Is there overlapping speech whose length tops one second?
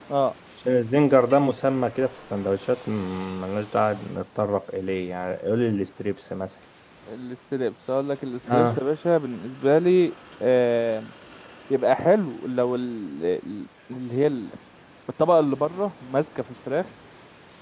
No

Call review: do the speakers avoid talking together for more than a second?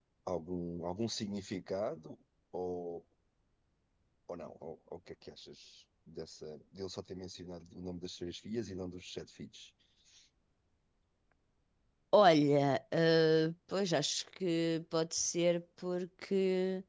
Yes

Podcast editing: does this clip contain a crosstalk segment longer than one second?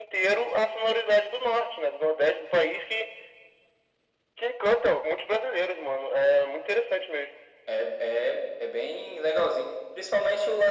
No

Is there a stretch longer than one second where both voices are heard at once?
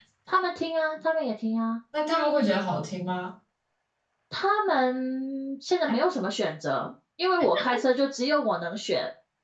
No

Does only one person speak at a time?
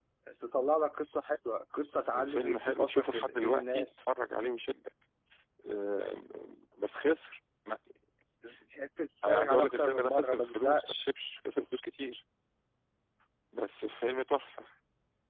No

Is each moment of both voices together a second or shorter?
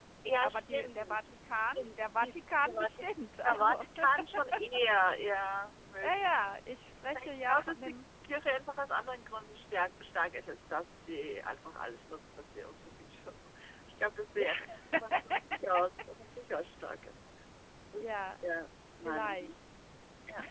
No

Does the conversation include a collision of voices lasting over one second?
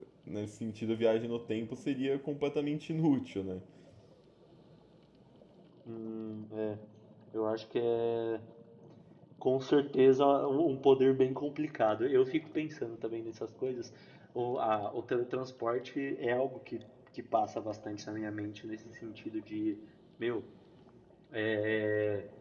No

